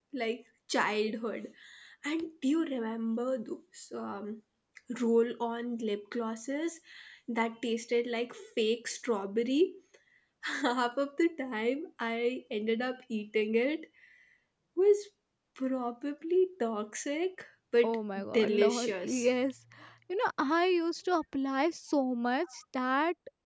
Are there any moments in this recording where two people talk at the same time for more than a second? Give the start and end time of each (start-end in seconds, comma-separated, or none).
17.8-19.3